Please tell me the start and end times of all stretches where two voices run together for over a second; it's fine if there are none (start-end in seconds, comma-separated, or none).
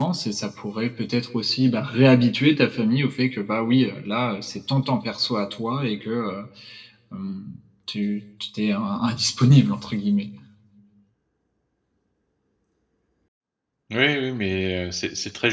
none